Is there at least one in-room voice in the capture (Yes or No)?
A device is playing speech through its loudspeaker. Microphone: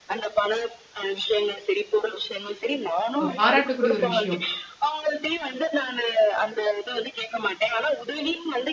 Yes